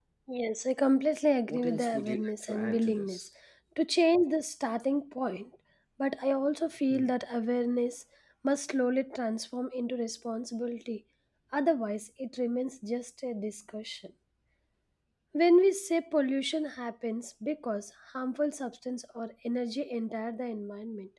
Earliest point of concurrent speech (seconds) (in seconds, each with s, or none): 1.5 s